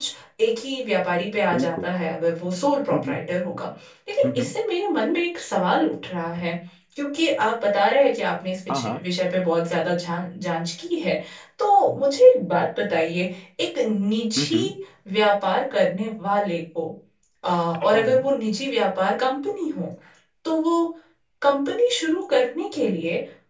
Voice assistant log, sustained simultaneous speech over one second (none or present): none